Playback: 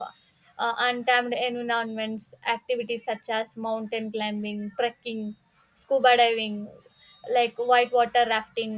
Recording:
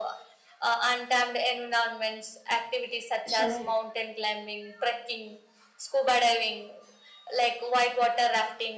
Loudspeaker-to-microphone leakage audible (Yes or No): Yes